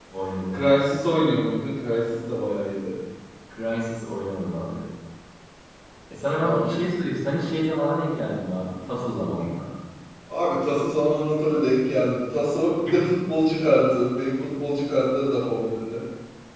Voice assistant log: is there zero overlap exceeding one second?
Yes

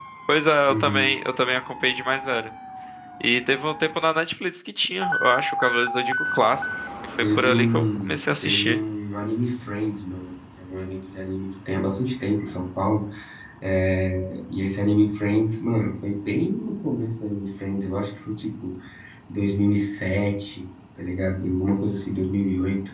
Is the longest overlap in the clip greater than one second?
Yes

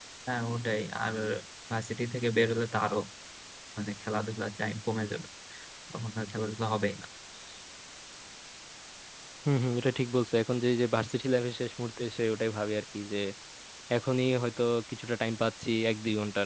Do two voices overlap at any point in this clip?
No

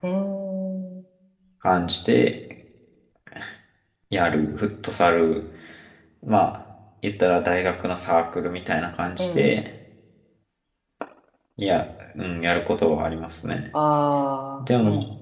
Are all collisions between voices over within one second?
Yes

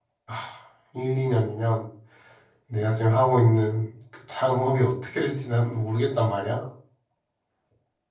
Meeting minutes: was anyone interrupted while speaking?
No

